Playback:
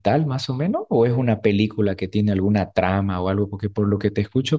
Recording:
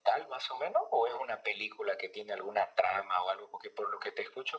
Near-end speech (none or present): none